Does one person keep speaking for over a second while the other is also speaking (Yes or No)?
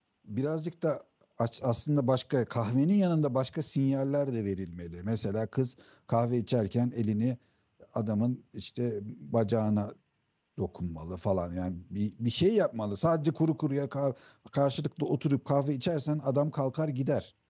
No